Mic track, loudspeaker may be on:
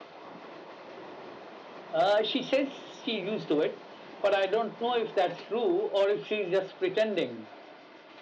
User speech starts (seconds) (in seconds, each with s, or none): none